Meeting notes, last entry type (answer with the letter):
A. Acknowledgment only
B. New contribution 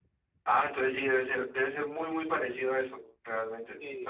B